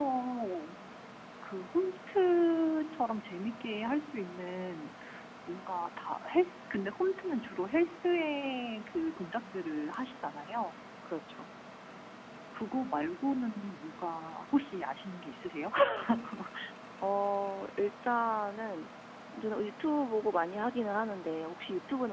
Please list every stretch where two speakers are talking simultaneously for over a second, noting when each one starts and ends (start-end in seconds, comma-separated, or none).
none